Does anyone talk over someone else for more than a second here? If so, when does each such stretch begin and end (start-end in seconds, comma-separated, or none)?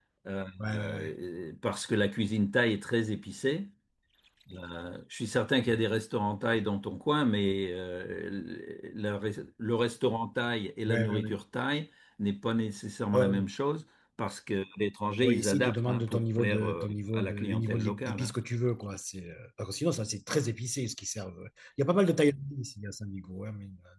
15.2-18.3